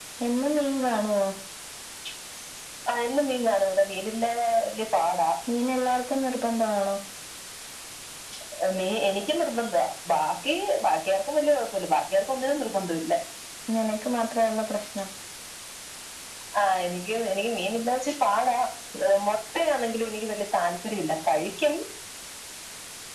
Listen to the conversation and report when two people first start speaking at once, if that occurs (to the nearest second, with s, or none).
none